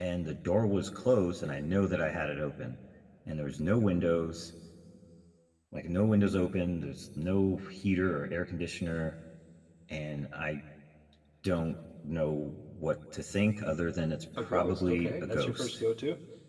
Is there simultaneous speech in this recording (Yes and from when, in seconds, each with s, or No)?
Yes, from 14.4 s